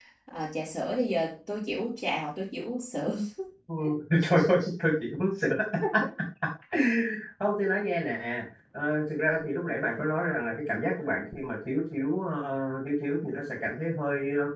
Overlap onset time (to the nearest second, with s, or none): none